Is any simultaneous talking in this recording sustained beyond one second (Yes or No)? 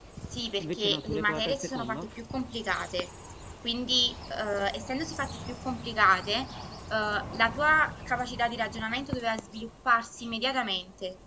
Yes